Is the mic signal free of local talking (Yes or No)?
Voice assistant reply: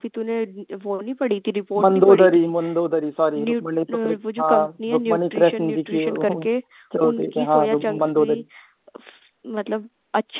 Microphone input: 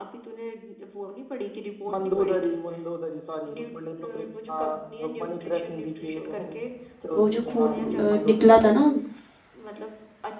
No